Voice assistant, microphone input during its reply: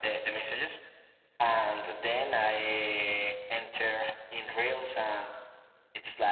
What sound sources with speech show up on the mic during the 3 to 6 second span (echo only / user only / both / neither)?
echo only